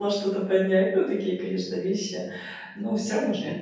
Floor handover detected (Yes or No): No